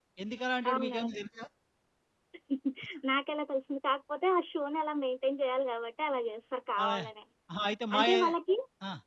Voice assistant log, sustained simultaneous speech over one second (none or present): none